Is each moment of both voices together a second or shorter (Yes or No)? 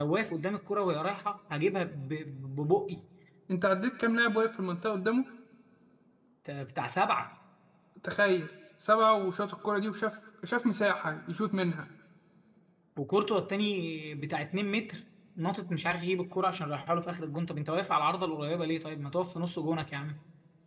Yes